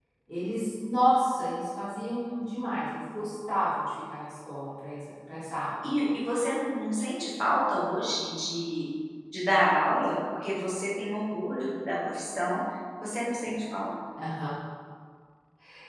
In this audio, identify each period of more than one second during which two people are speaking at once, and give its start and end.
none

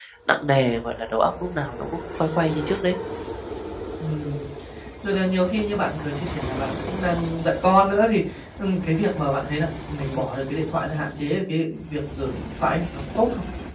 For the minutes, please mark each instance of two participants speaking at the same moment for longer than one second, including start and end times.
none

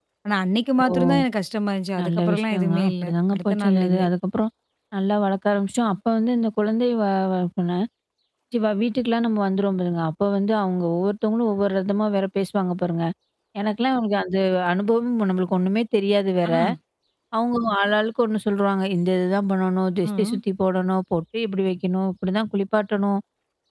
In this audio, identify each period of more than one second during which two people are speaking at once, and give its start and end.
2.0-4.1

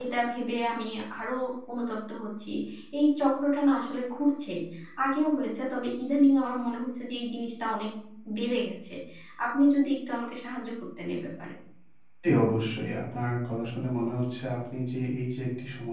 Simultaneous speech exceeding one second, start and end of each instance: none

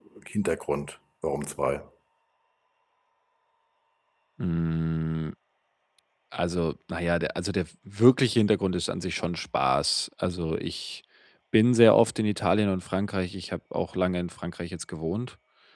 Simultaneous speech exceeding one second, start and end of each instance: none

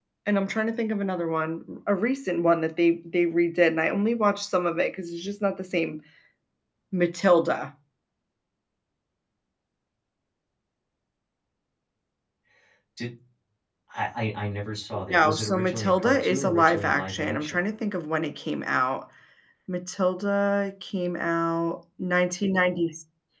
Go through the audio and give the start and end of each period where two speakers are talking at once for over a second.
15.1-17.6

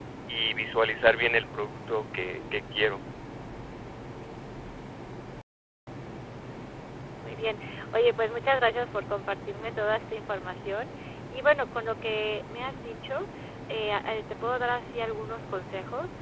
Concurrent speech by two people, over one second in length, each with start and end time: none

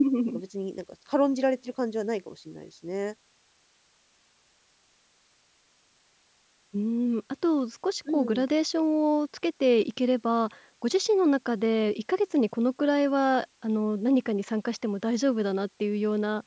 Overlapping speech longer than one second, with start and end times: none

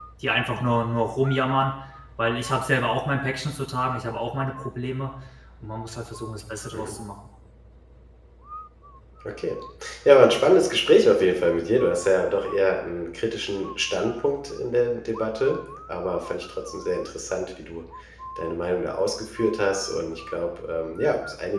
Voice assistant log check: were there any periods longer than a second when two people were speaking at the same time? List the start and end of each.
none

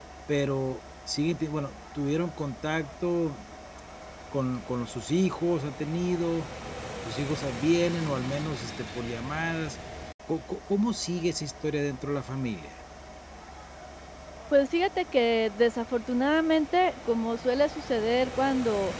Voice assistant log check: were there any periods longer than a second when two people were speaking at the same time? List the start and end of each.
none

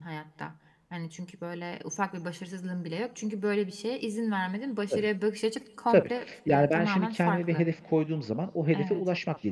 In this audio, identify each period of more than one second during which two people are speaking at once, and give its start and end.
5.9-7.7

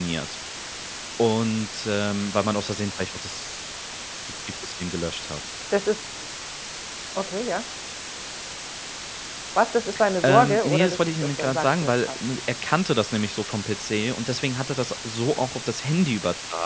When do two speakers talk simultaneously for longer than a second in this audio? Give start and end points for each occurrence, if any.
10.2-12.1

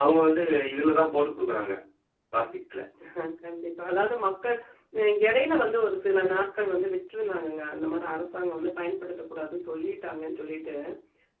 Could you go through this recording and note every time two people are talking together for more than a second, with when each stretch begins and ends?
none

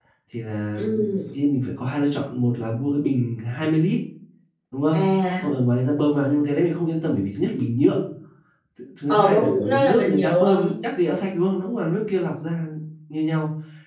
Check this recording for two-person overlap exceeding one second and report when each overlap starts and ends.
9.1-10.7

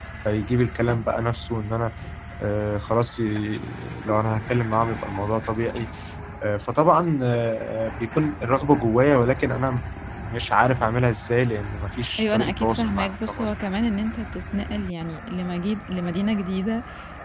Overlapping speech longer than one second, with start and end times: 12.2-13.5

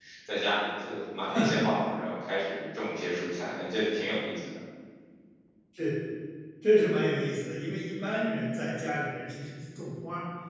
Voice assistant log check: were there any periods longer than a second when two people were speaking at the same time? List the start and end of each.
none

